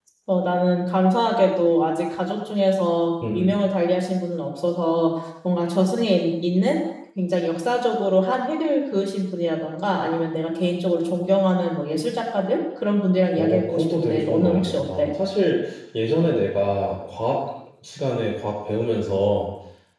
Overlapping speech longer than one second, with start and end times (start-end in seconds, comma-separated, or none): 13.4-15.1